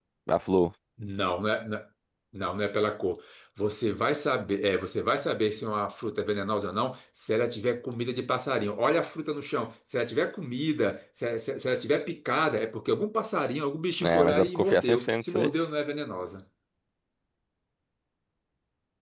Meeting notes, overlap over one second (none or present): present